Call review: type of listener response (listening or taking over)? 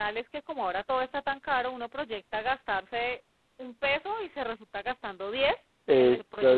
taking over